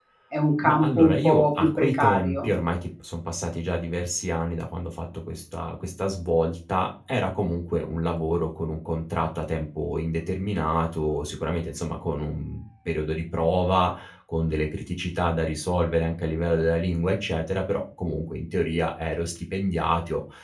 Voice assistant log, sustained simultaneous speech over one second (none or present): present